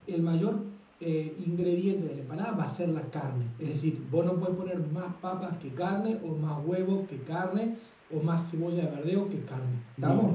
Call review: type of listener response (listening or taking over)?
taking over